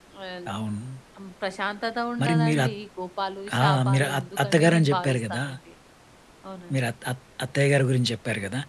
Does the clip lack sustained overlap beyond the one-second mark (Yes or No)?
No